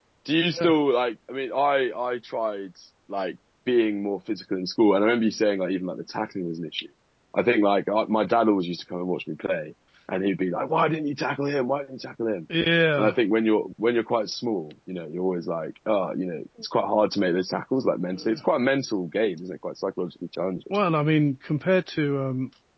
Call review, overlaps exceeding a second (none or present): none